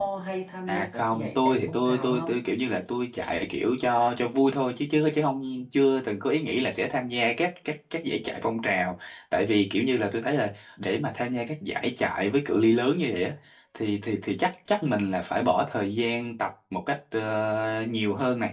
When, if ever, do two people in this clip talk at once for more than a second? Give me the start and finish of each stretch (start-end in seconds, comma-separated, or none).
0.7-2.5